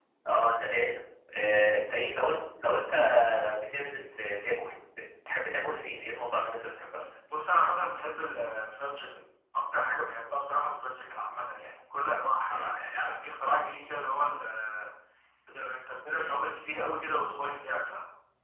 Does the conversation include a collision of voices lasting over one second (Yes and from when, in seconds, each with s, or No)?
No